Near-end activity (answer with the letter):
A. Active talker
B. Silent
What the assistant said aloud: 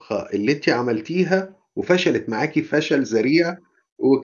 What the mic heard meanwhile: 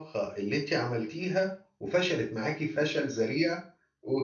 B